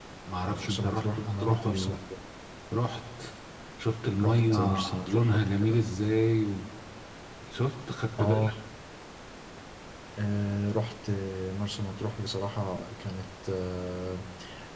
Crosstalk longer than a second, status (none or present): present